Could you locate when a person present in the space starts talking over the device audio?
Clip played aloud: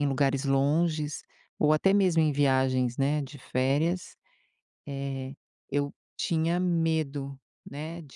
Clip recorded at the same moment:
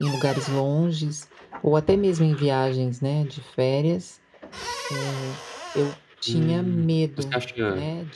6.3 s

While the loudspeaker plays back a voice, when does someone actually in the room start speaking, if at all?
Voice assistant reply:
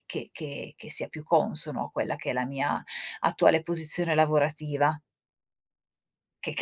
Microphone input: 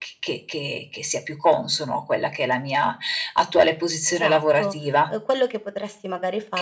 4.0 s

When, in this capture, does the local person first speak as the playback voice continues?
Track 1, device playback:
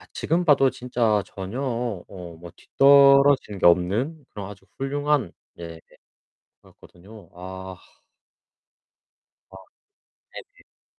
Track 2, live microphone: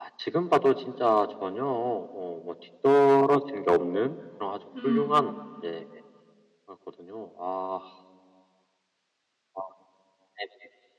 4.8 s

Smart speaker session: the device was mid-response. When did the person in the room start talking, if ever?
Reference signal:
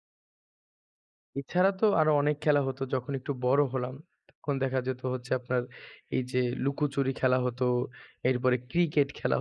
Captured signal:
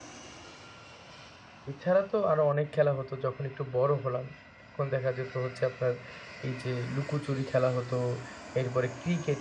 none

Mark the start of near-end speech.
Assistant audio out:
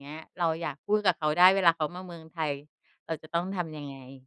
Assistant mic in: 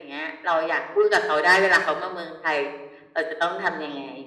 none

